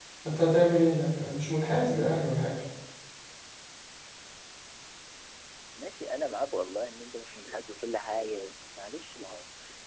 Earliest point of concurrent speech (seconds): none

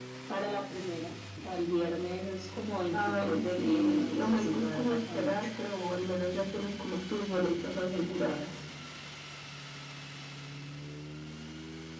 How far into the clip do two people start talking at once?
2.9 s

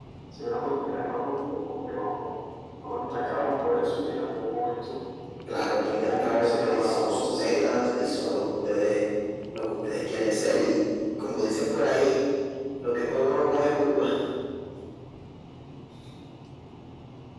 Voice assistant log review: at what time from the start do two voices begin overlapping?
5.8 s

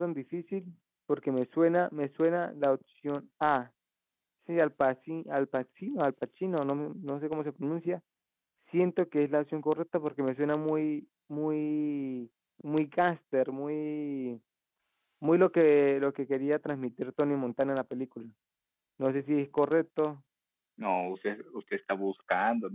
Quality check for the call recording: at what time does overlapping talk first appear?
none

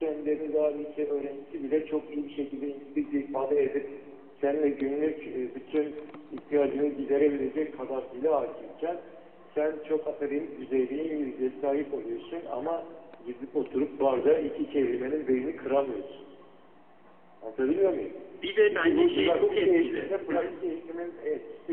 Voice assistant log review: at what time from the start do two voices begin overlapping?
18.6 s

